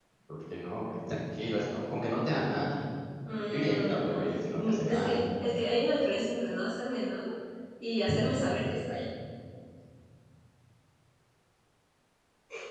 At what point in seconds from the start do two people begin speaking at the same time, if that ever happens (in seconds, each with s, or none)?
3.5 s